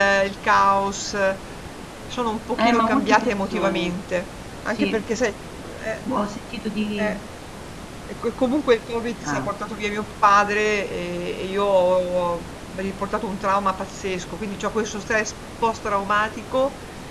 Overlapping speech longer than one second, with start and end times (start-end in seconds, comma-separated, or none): 2.6-3.9